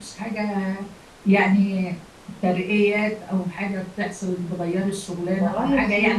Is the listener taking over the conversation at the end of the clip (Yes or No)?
No